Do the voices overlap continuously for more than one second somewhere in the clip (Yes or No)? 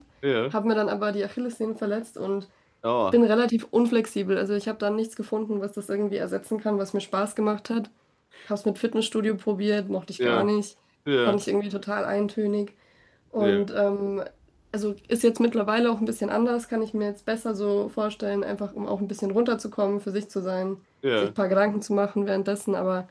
No